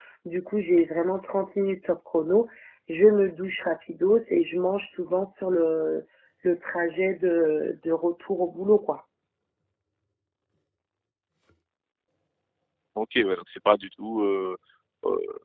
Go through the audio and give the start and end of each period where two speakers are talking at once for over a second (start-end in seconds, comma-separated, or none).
none